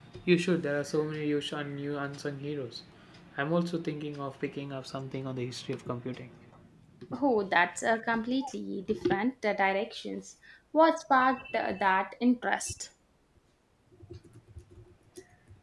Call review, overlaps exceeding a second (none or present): none